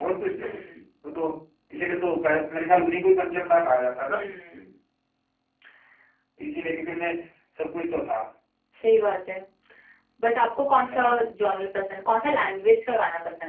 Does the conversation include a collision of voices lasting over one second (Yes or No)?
No